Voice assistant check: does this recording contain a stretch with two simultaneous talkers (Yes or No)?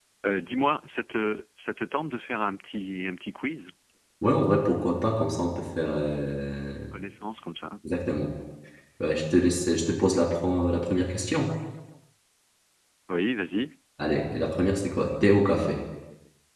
No